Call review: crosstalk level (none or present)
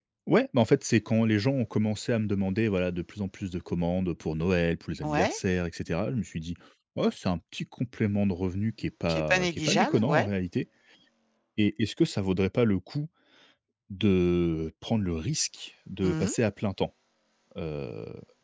present